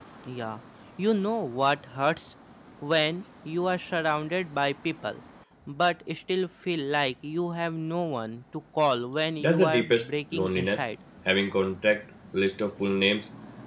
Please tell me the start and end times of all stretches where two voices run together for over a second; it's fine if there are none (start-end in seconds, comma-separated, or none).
9.4-10.8